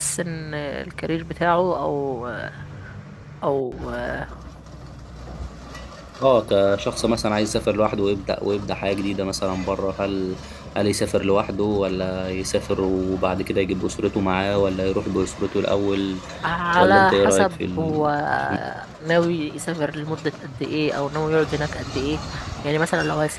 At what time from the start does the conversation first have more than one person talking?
17 s

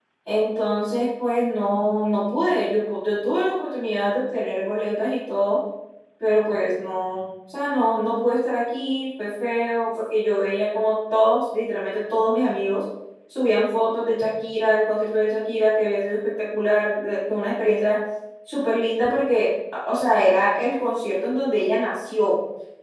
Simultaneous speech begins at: none

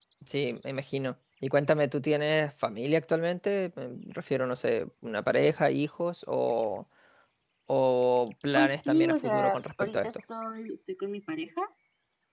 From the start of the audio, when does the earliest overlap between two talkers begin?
9 s

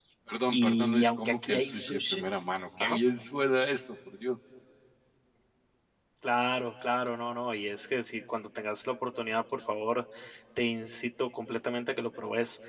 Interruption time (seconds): 1 s

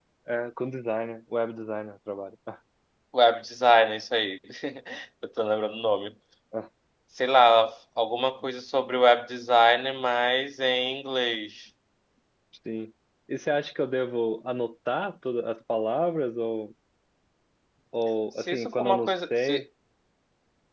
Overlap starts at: 18 s

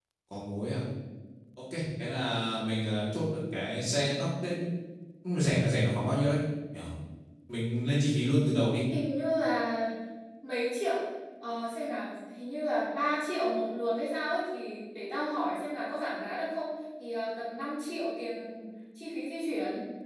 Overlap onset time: none

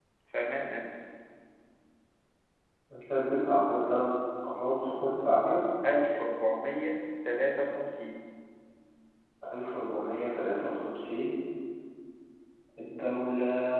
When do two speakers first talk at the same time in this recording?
none

